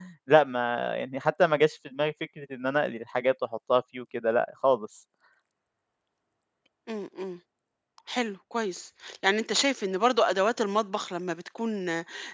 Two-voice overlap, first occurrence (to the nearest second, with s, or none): none